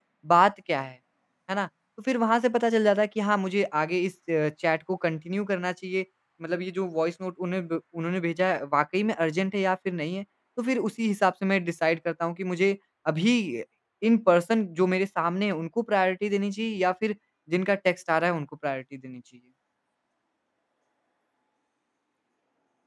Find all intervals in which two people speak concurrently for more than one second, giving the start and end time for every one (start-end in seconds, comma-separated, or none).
none